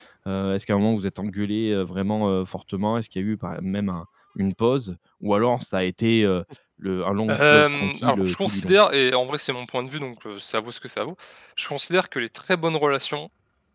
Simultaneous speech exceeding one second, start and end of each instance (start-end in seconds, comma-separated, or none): 7.3-8.7